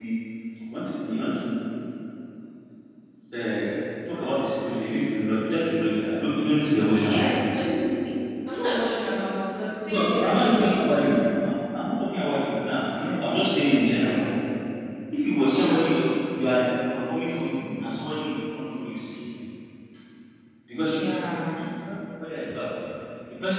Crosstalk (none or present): present